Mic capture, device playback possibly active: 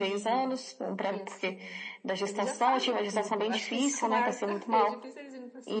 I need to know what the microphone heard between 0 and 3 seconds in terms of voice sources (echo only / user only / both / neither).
both